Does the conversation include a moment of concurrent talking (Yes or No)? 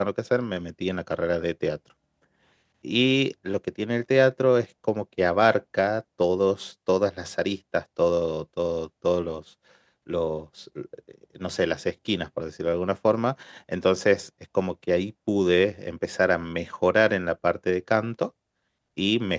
No